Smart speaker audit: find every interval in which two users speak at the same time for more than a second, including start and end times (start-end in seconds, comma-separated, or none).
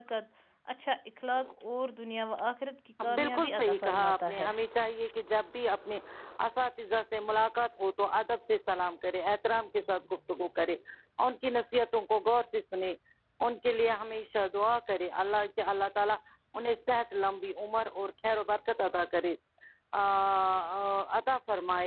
3.2-4.5